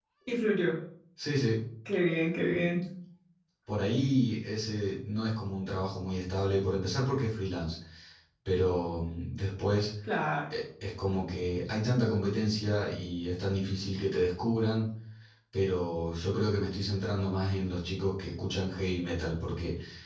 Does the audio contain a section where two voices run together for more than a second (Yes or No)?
No